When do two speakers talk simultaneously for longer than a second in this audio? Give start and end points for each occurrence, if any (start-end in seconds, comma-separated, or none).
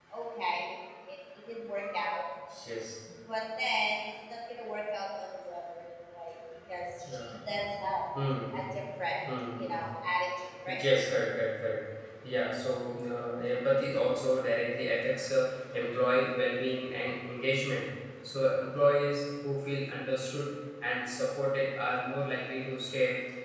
none